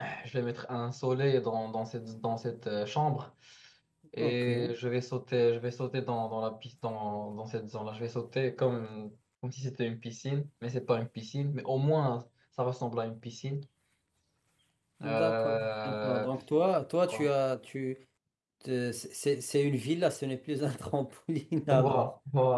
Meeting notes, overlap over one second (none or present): present